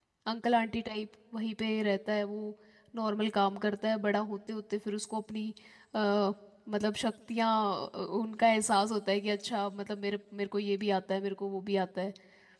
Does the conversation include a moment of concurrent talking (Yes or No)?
No